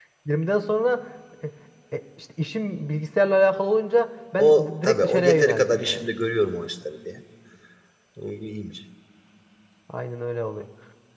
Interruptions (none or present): present